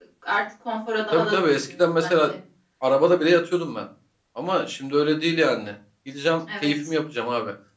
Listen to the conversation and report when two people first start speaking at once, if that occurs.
1.1 s

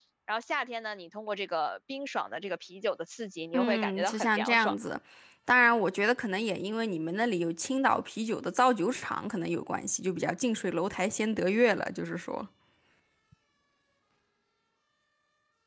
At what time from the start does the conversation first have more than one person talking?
3.5 s

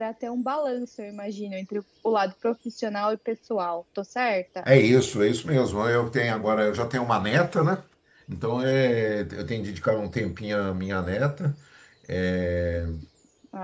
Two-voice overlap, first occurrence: none

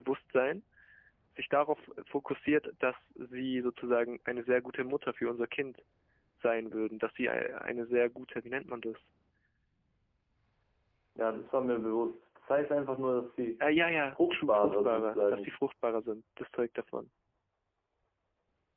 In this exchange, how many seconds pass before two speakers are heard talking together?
14.1 s

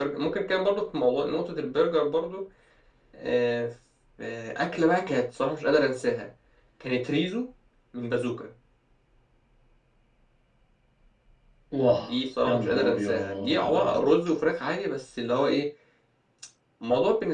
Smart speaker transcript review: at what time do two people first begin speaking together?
12.5 s

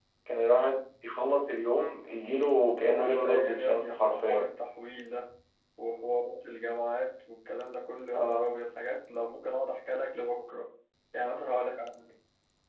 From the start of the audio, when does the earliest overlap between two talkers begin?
2.7 s

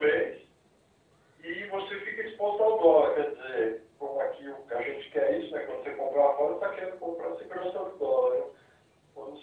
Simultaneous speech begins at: none

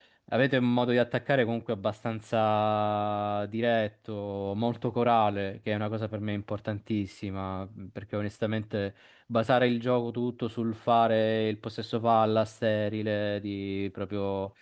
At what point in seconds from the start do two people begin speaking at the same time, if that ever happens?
none

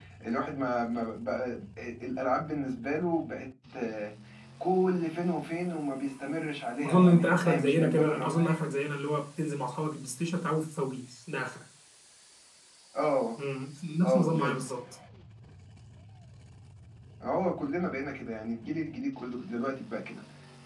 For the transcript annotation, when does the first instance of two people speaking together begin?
6.9 s

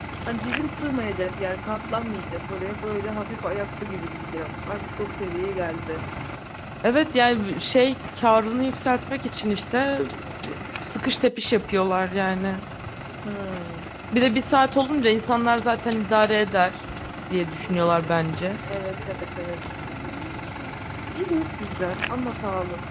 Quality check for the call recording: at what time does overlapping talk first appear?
none

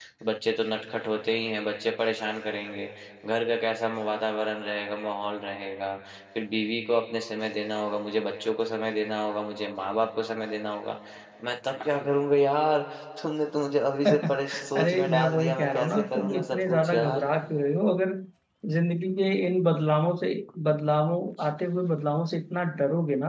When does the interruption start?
14.0 s

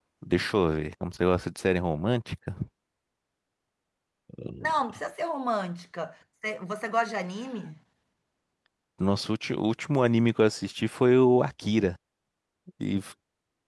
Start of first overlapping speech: none

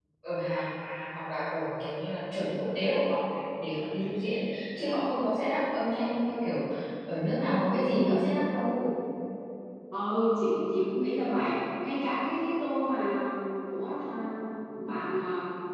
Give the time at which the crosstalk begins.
none

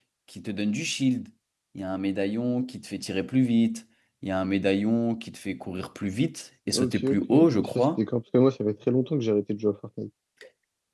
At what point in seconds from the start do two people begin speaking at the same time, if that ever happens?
6.7 s

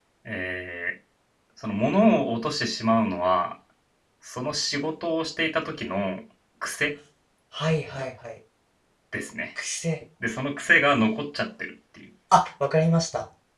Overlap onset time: none

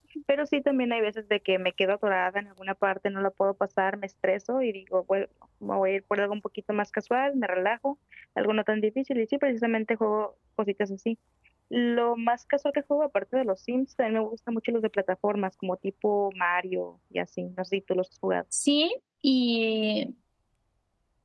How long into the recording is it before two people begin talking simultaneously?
none

